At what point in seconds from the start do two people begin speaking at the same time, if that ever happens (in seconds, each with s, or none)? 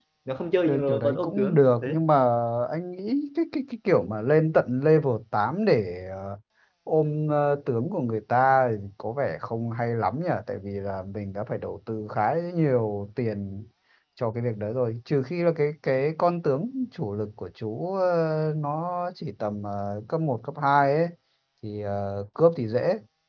0.7 s